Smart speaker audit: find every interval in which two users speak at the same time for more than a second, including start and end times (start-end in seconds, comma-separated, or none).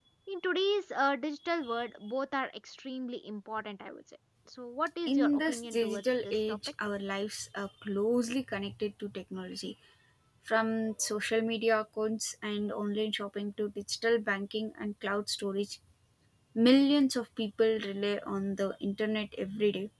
5.1-6.6